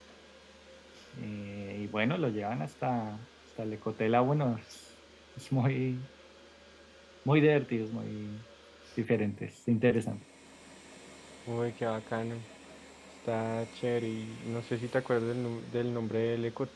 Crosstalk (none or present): none